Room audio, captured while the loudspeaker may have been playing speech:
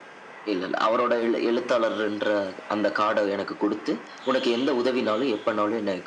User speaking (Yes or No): No